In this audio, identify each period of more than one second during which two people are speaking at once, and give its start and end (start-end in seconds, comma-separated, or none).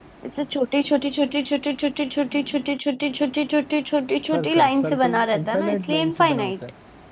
4.3-6.5